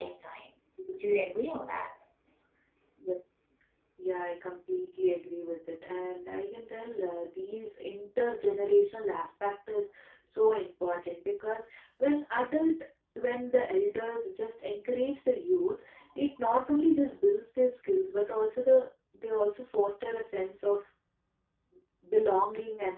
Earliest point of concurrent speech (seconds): none

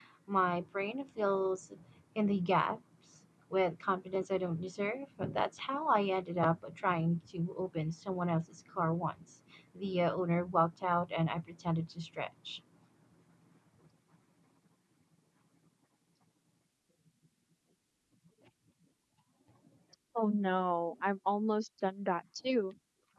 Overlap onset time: none

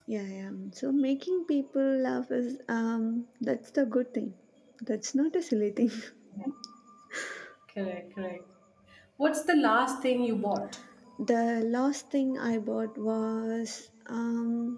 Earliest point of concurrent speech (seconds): none

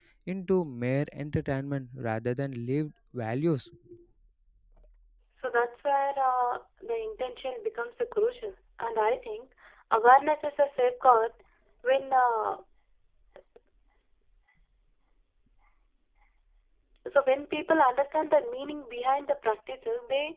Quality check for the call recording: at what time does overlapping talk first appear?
none

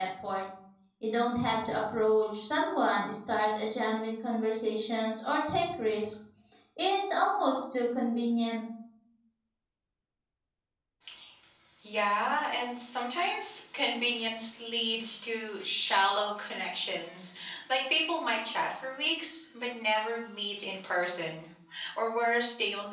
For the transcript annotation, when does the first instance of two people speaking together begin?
none

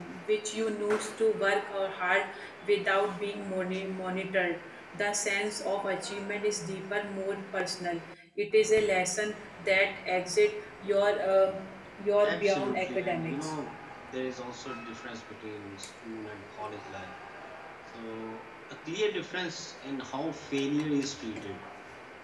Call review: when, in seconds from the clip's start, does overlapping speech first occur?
12.2 s

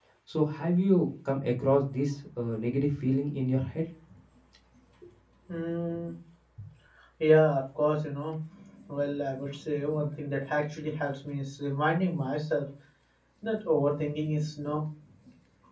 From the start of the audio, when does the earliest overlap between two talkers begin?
none

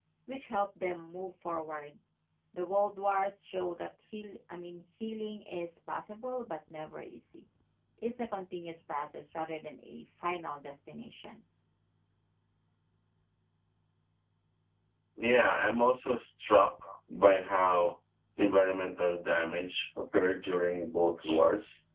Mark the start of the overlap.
none

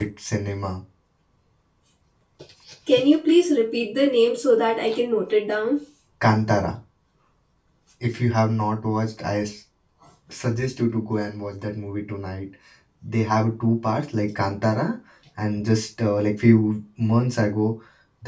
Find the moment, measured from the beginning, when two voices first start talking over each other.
none

